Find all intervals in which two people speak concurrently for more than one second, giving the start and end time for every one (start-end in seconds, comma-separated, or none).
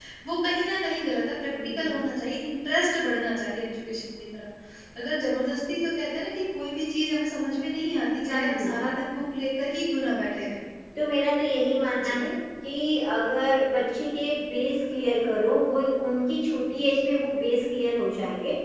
none